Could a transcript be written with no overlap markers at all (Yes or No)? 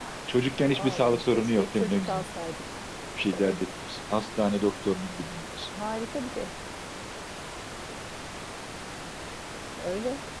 No